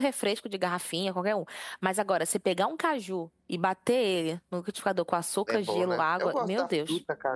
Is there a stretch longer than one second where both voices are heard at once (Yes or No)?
Yes